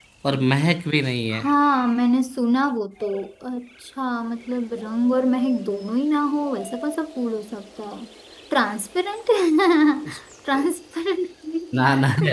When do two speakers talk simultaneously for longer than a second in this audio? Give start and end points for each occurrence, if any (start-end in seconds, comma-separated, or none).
none